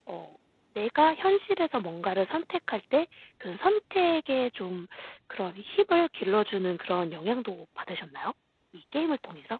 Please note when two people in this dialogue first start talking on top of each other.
none

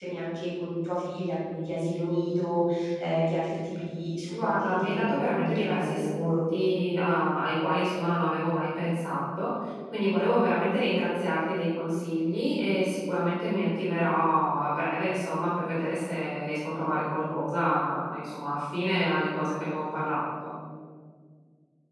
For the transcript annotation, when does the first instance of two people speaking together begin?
4.3 s

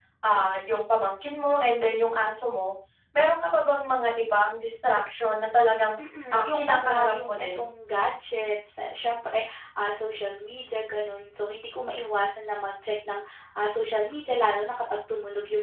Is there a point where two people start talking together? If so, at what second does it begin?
6.3 s

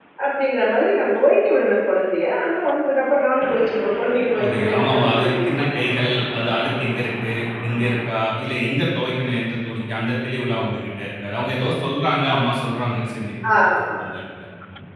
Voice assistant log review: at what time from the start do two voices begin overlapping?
4.4 s

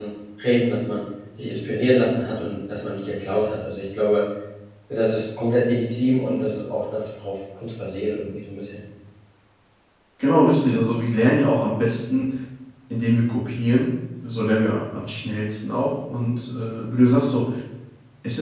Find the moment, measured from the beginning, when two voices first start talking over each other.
none

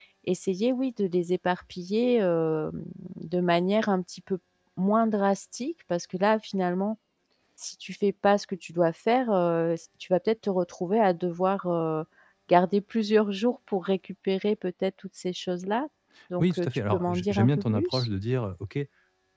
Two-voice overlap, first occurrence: 16.4 s

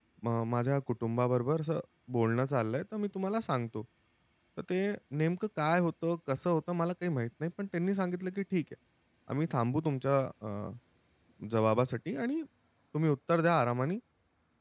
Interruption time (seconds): none

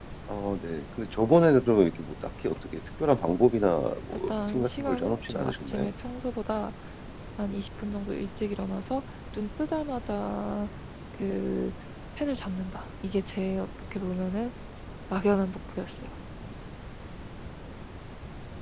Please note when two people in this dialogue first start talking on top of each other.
4.3 s

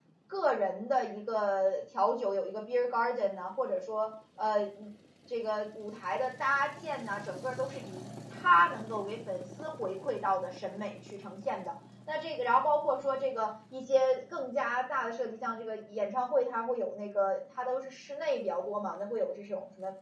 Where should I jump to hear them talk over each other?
none

